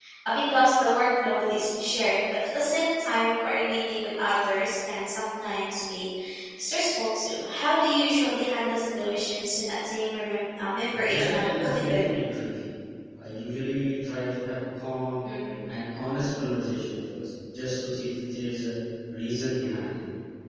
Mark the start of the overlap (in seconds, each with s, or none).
10.9 s